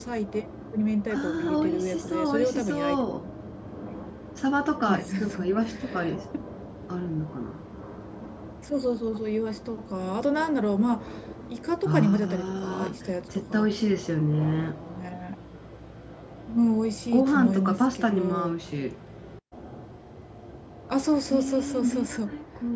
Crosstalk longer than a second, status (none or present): present